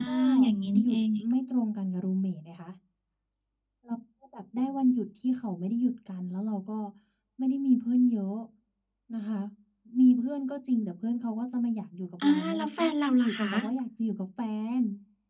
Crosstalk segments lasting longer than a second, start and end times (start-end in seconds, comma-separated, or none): 12.2-13.5